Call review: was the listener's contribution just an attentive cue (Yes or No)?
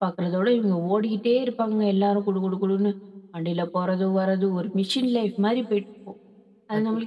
Yes